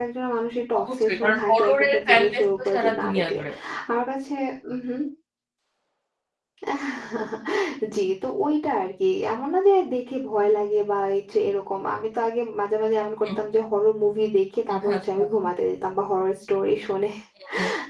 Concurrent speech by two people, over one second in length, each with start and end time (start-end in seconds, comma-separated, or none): 0.8-3.4